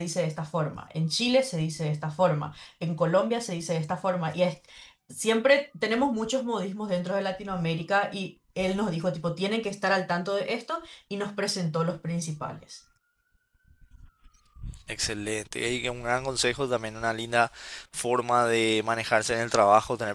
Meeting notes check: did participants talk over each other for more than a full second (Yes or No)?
No